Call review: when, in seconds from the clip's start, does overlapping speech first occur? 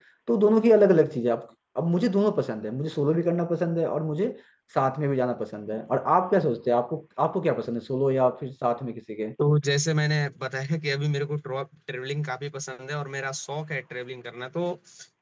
none

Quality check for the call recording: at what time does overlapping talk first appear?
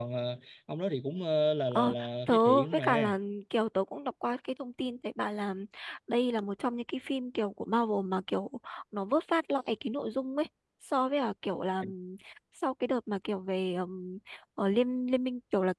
1.7 s

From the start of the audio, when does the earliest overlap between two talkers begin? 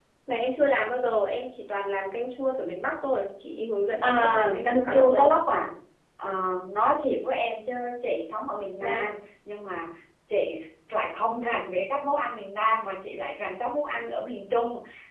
4.0 s

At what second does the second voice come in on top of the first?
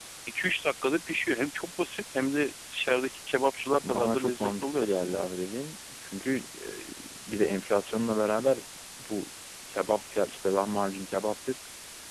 3.8 s

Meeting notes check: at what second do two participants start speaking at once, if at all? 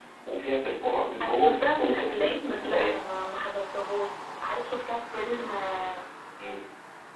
1.2 s

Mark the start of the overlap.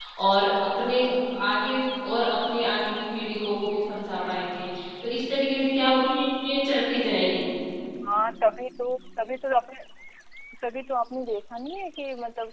none

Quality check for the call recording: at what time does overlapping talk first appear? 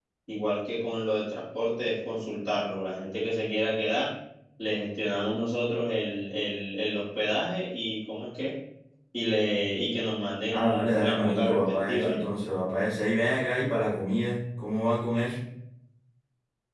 10.5 s

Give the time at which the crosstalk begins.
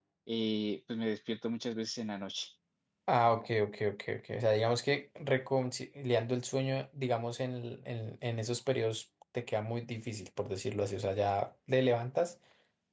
none

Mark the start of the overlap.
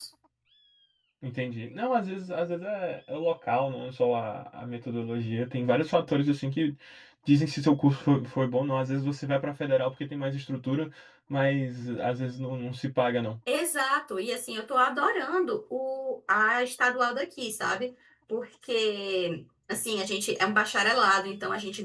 none

